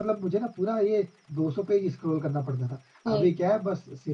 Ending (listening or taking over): listening